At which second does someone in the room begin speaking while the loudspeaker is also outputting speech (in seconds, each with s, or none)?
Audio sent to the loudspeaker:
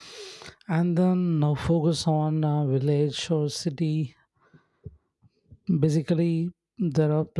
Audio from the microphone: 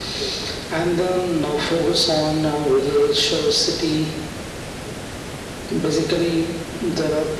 none